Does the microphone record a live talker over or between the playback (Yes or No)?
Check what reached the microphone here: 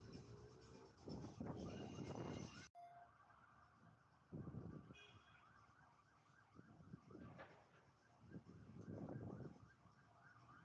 No